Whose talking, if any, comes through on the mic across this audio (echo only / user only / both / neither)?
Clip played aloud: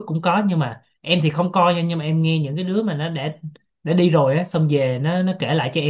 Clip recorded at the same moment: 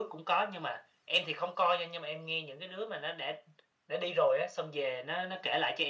echo only